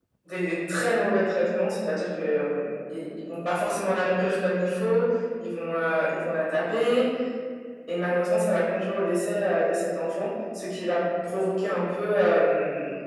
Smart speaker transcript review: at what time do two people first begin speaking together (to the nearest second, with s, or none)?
none